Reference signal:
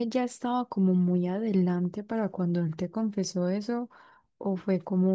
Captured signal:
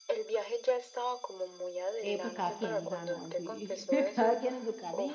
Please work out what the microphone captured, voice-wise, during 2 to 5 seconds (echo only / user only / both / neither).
both